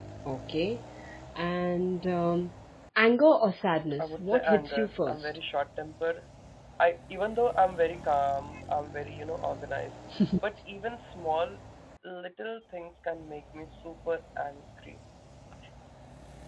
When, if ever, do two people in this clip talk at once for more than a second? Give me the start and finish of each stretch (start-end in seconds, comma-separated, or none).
4.0-5.3